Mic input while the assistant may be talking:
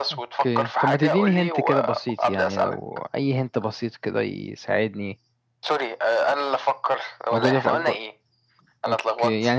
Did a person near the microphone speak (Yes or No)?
Yes